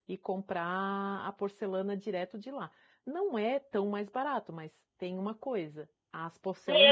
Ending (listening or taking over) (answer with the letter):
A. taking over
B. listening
A